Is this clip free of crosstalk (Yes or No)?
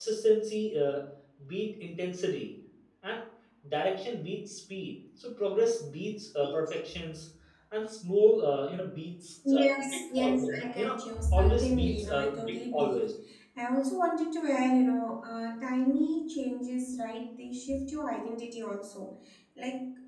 No